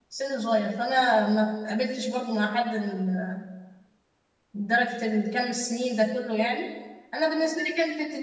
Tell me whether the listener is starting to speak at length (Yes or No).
No